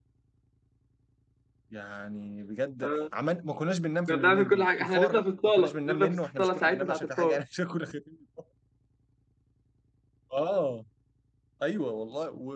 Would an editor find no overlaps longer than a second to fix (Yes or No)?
No